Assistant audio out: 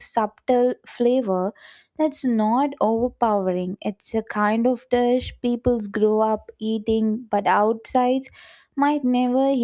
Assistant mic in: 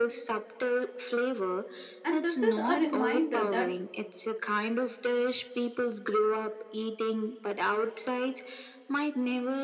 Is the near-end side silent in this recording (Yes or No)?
No